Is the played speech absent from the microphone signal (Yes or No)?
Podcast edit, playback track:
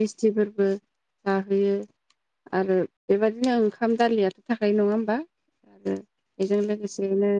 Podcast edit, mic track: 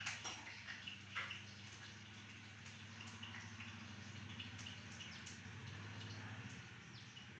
Yes